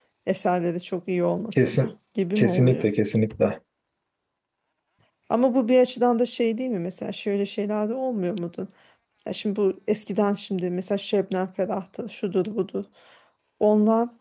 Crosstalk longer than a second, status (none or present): none